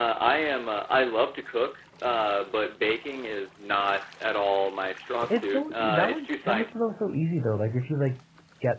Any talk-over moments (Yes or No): Yes